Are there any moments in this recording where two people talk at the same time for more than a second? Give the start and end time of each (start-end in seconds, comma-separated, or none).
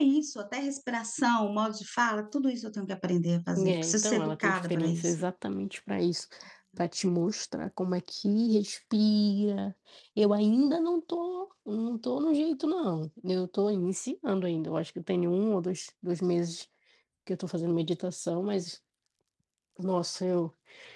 3.5-5.2